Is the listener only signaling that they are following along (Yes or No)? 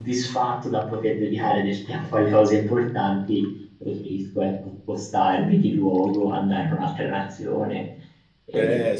No